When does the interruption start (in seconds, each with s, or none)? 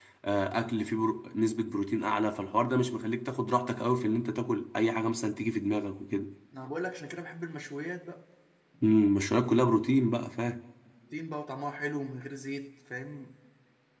none